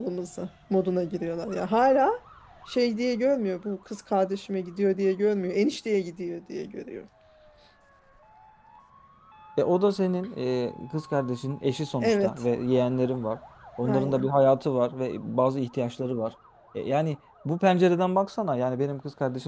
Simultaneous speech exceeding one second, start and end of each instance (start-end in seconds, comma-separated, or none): none